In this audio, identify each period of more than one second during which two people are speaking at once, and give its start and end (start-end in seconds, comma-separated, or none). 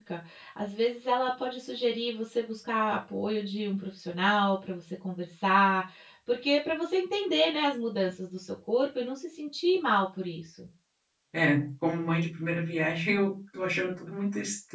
none